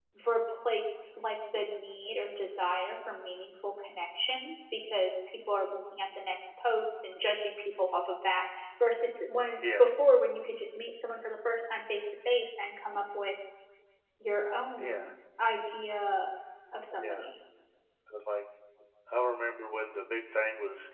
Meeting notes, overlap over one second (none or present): none